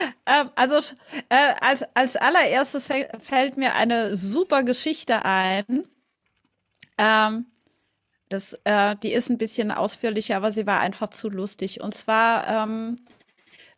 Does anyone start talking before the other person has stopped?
No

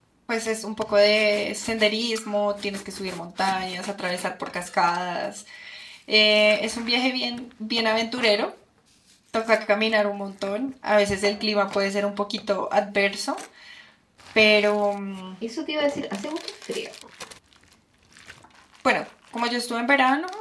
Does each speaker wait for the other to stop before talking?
Yes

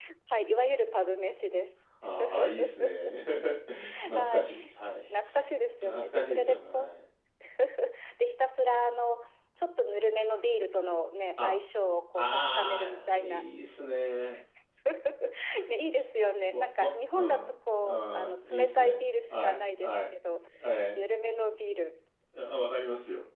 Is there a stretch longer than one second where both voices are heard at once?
Yes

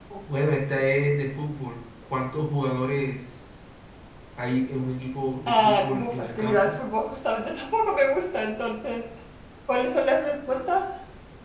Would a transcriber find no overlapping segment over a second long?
No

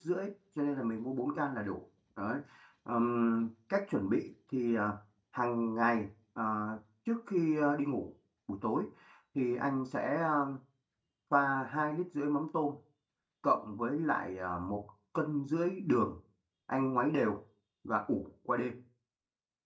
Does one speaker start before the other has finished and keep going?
No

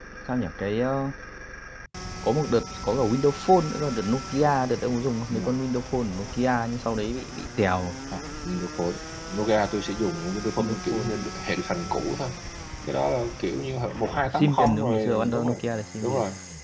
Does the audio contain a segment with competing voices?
Yes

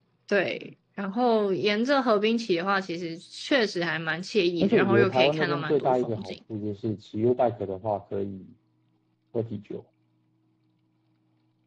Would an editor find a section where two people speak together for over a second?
Yes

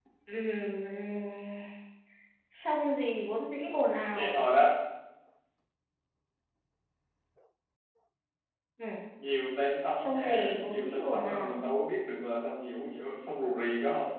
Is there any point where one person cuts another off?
Yes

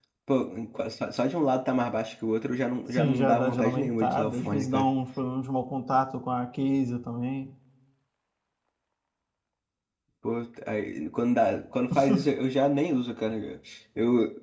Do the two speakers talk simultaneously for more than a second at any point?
Yes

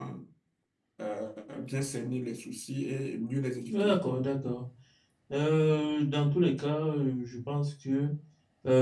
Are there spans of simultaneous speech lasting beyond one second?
No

